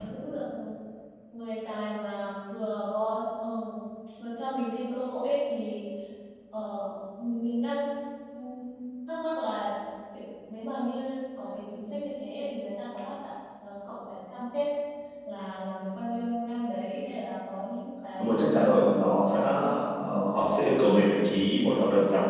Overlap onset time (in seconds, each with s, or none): 18.2 s